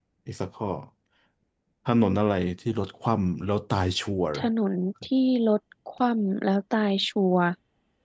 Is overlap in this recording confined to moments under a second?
Yes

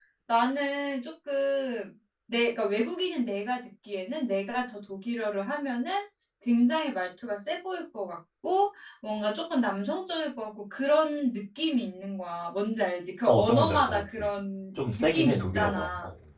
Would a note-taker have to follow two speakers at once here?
Yes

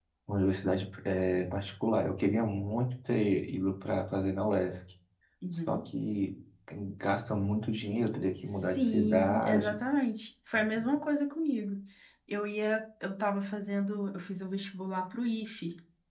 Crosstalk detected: Yes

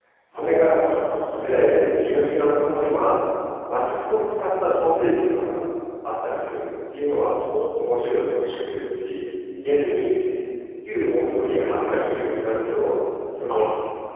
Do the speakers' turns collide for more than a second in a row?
No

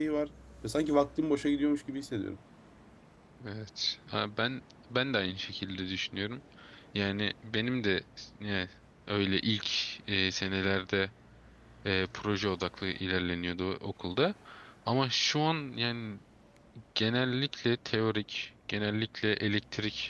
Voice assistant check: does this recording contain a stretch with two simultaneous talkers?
No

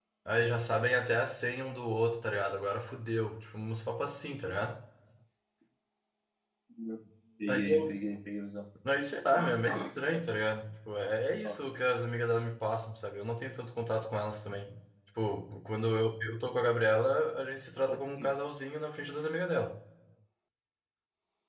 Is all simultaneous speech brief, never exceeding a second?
Yes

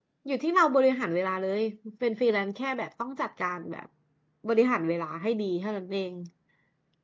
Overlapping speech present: No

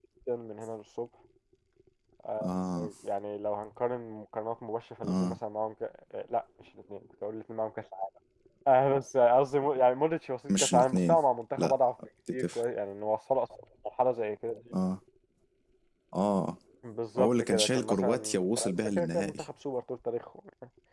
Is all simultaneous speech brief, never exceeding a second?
No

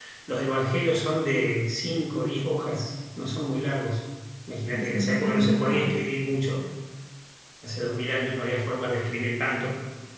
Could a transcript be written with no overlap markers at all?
No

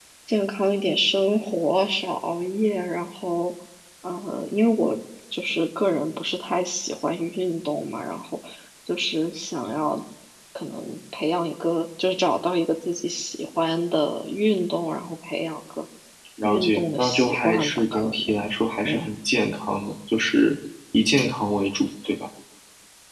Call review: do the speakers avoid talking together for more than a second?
No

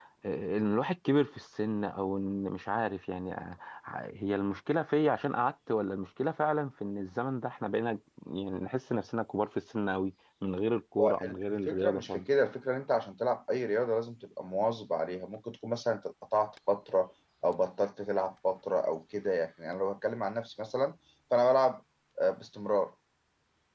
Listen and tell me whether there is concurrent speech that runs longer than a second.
Yes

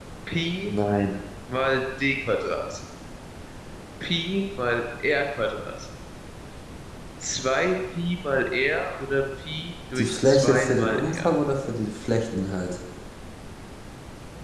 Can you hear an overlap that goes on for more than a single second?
Yes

